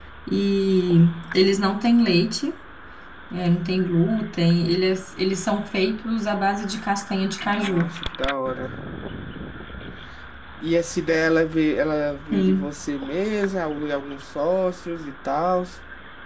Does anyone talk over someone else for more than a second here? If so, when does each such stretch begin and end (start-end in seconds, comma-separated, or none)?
none